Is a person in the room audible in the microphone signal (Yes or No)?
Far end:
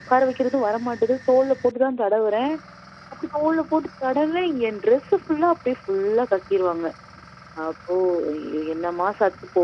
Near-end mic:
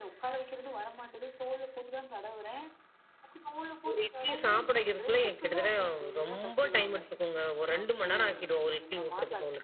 Yes